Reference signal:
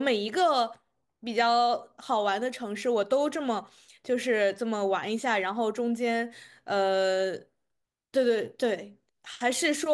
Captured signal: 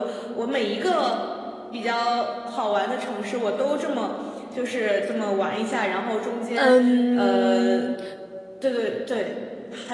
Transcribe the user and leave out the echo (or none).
嗯，